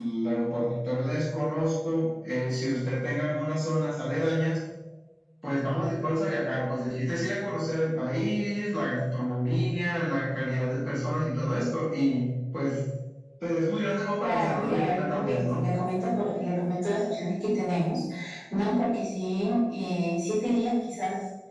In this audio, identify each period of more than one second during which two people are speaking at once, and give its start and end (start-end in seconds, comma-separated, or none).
14.2-15.6